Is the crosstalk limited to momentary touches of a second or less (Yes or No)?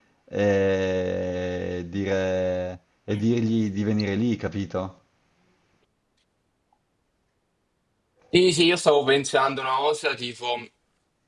Yes